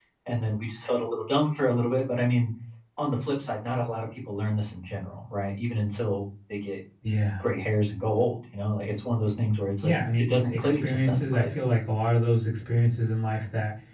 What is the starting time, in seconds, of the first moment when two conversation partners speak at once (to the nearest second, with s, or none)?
10 s